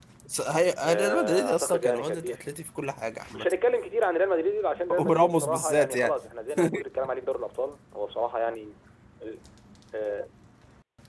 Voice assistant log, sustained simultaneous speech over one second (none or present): present